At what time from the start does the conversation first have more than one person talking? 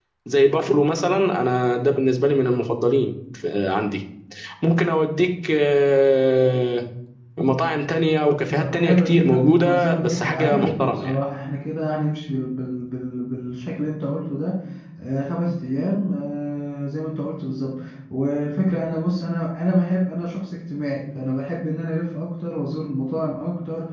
8.6 s

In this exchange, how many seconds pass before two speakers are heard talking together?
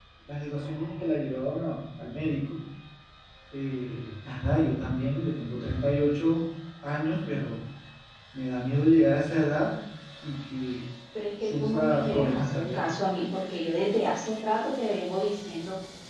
11.4 s

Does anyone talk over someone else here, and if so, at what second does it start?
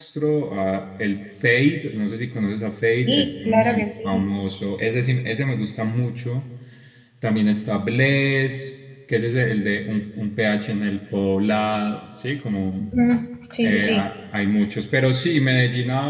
3.1 s

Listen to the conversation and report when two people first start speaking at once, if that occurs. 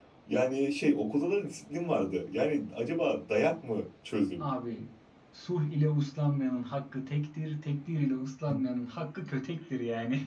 none

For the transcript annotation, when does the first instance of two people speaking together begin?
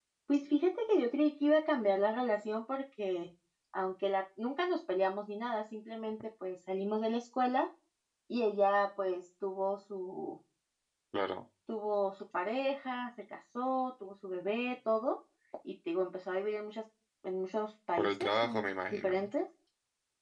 18.0 s

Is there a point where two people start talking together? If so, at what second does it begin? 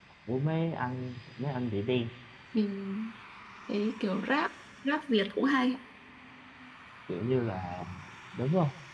none

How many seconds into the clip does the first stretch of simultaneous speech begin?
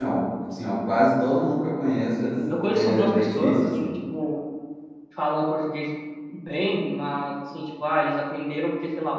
2.4 s

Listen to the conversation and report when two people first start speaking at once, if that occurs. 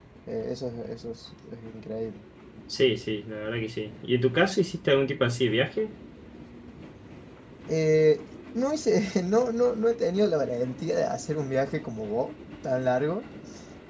none

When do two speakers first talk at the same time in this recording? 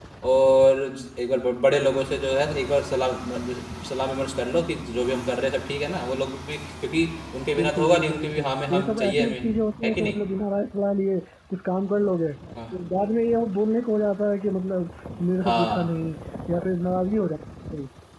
7.6 s

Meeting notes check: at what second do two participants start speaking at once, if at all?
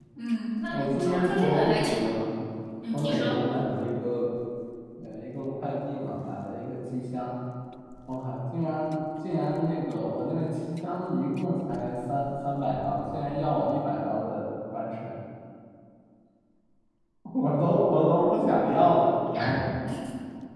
0.7 s

